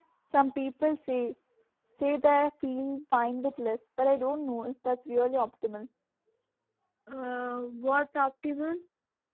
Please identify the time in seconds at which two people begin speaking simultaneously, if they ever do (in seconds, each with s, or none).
none